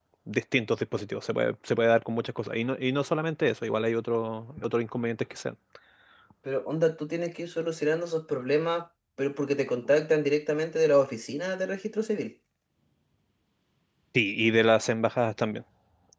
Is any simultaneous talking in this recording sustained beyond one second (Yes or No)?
No